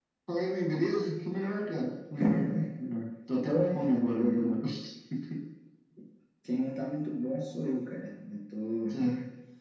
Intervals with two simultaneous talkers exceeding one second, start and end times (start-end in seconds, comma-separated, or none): 3.3-4.5